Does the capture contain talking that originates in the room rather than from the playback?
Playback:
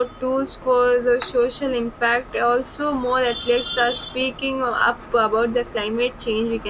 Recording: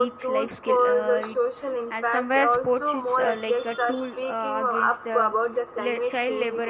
Yes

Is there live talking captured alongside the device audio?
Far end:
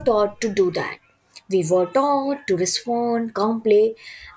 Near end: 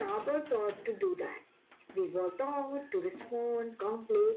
No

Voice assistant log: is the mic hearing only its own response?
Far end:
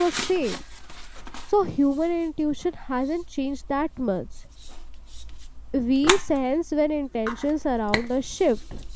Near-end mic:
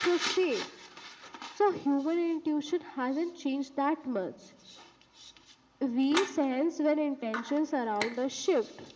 Yes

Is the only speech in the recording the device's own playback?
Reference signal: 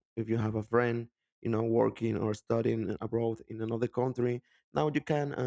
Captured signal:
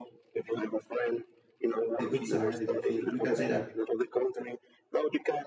No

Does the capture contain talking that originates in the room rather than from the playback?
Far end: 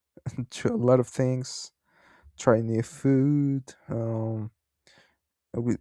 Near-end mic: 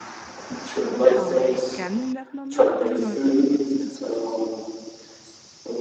Yes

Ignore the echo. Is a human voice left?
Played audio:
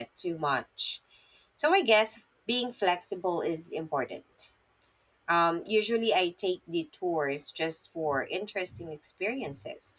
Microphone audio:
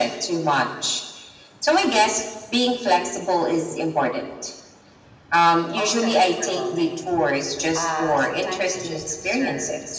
Yes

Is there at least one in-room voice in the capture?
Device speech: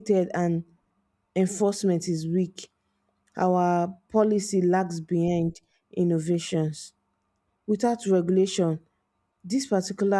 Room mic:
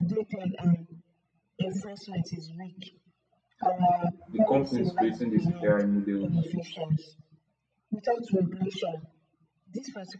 Yes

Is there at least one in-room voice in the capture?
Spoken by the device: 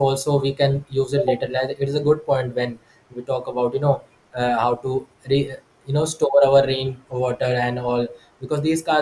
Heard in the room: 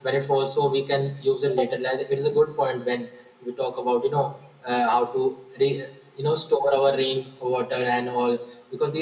No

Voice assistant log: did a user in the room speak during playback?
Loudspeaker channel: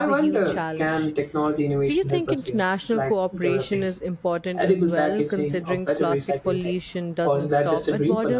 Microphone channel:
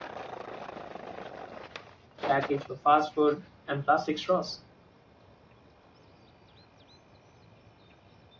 Yes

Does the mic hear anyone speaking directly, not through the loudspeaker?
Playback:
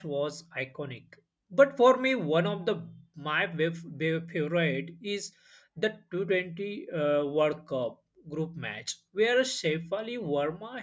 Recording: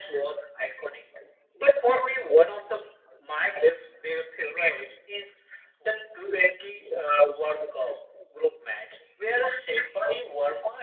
No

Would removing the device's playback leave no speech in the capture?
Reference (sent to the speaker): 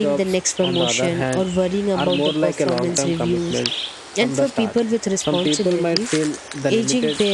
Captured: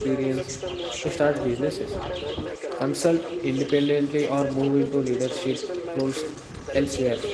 No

